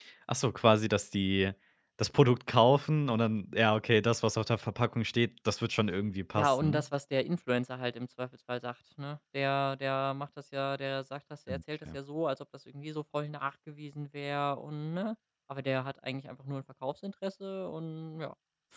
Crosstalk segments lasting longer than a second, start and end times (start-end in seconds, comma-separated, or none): none